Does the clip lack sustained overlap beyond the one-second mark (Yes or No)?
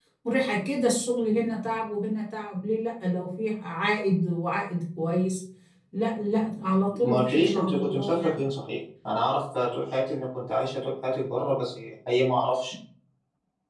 No